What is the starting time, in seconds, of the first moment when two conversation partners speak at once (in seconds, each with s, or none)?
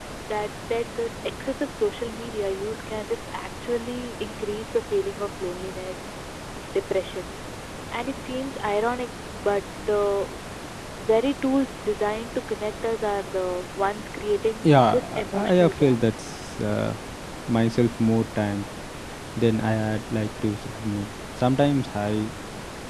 14.6 s